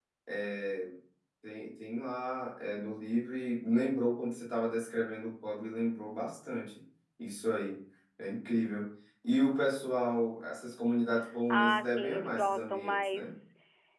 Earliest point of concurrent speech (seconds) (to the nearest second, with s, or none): 11 s